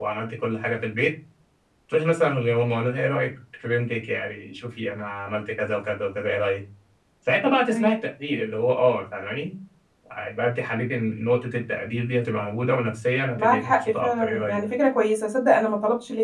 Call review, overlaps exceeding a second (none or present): present